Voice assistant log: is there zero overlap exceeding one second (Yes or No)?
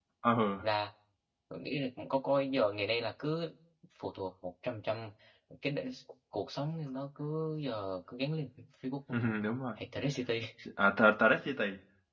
Yes